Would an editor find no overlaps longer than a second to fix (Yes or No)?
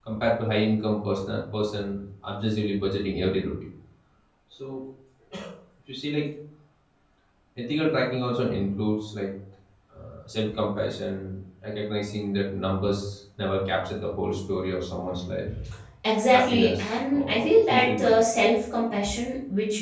No